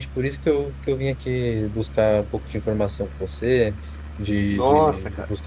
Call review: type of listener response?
listening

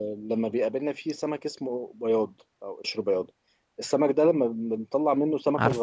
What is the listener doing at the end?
listening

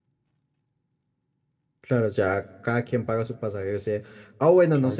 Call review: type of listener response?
listening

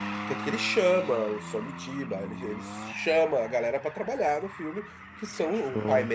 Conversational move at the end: listening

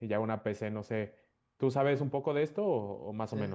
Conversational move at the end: taking over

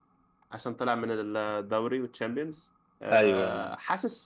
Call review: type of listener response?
listening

